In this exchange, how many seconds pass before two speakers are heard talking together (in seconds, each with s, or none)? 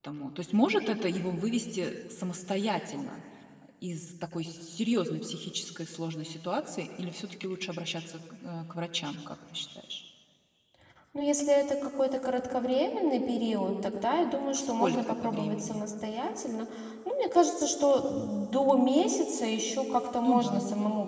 14.6 s